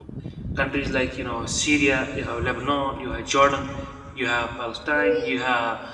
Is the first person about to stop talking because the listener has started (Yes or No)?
No